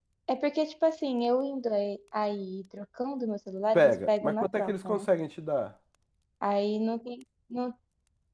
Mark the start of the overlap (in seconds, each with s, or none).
3.7 s